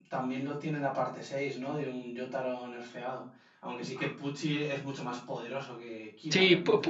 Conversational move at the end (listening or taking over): taking over